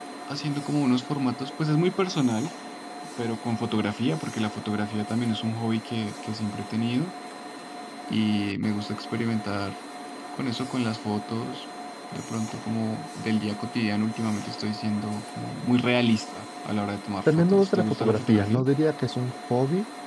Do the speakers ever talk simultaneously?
Yes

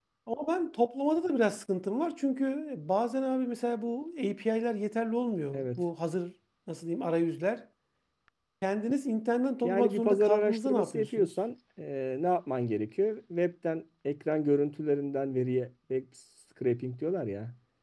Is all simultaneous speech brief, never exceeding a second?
No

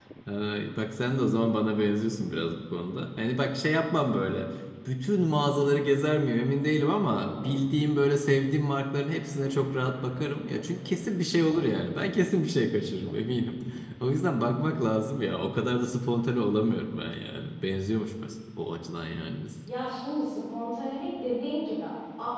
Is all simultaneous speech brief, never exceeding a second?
Yes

